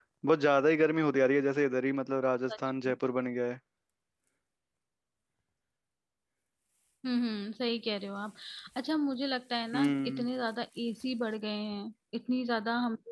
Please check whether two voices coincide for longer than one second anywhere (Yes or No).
No